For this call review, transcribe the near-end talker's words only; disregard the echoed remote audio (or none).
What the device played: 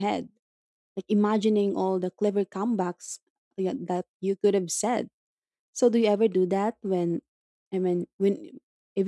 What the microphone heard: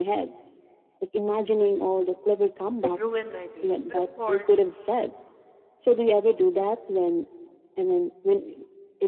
could ruin my day. But of course,